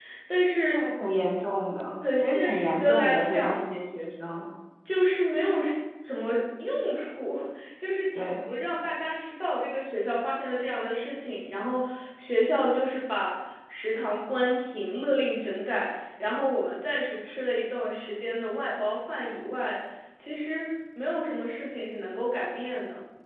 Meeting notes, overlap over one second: present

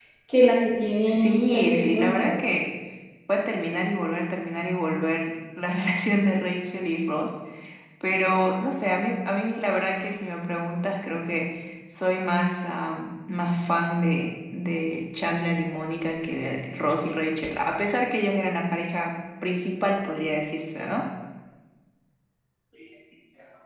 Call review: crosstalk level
present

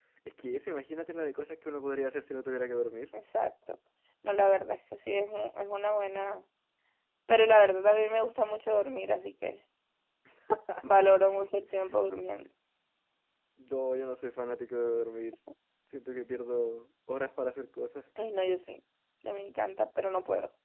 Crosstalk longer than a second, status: none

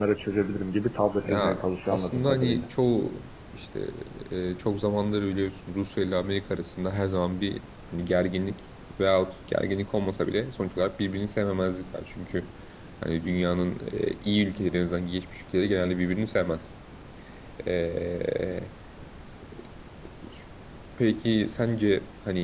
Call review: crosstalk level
present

